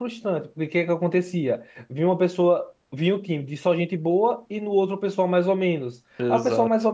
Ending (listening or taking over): listening